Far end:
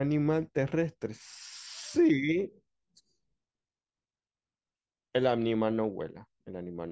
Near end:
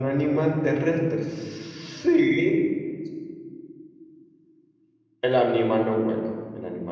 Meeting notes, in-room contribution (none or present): none